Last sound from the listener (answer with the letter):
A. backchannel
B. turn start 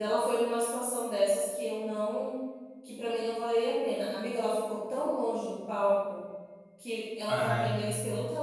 A